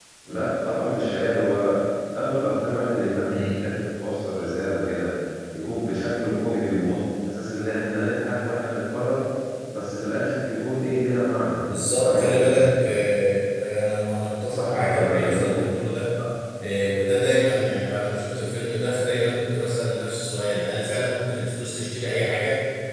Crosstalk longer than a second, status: present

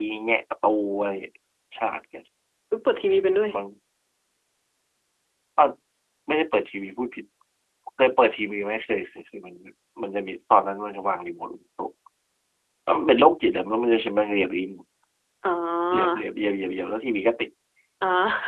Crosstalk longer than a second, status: none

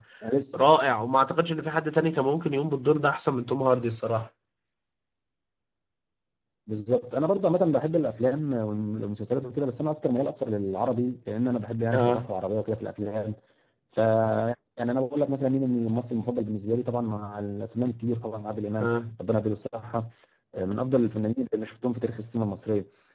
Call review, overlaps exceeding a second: none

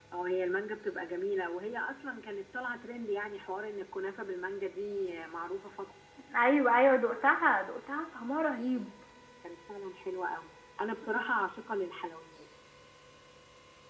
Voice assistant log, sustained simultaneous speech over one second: none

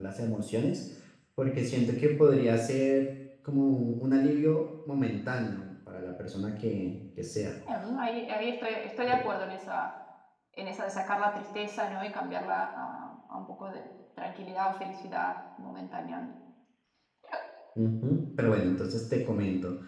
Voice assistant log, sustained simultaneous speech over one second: none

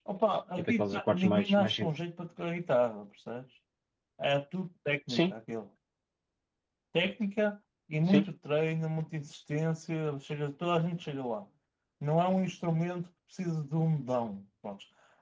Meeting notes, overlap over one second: present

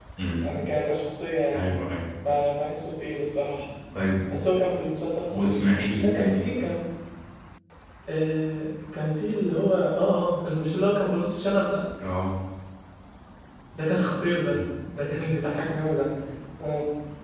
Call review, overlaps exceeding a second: none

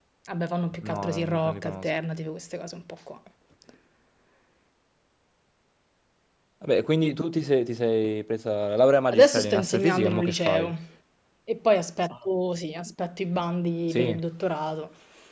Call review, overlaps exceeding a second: present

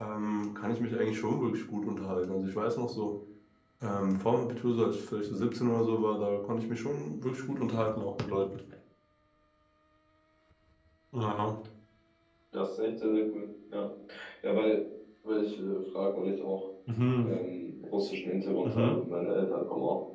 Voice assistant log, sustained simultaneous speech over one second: none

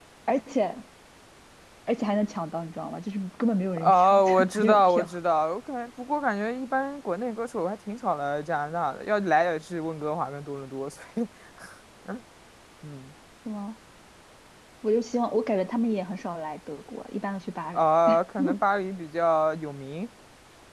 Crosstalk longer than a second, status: present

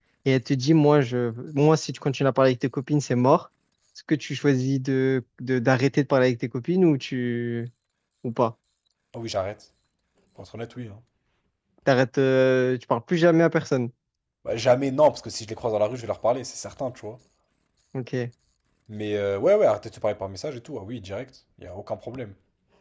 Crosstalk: none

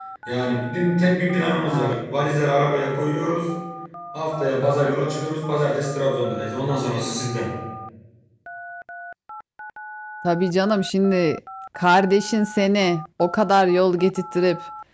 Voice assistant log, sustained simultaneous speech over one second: none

